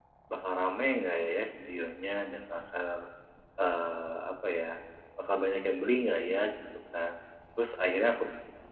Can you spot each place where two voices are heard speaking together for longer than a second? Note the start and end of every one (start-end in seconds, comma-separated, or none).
none